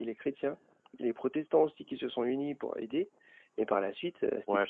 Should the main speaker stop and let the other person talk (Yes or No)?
Yes